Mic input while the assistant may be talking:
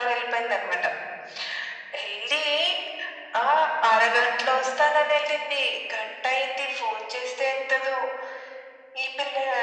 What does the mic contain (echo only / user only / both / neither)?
echo only